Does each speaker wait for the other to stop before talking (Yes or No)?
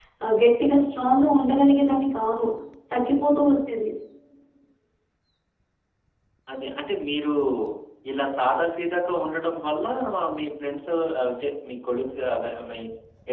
Yes